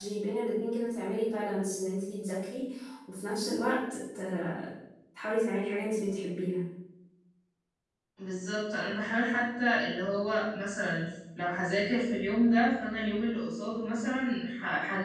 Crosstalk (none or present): none